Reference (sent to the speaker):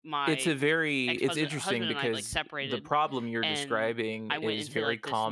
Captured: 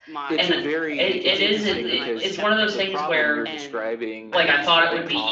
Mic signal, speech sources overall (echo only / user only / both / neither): both